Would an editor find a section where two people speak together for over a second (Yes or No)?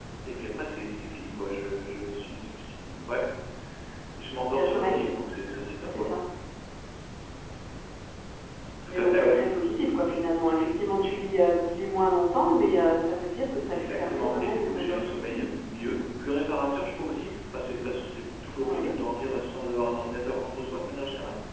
Yes